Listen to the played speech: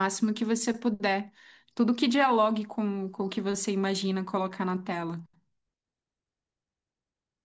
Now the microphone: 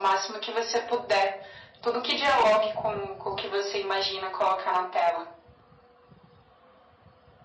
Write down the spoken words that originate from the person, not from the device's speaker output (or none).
none